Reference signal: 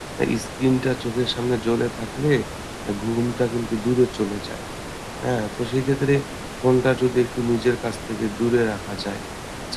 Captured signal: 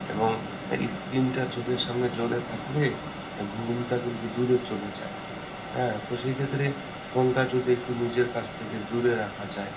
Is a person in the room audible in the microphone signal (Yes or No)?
No